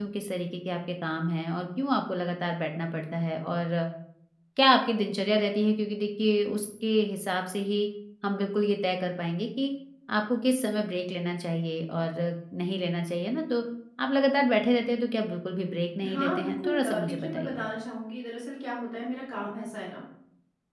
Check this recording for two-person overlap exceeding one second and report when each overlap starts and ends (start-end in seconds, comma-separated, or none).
16.1-17.6